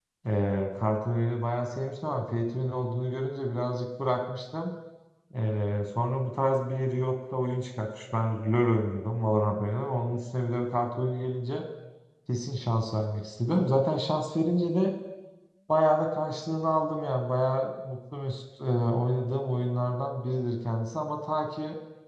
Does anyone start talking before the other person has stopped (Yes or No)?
No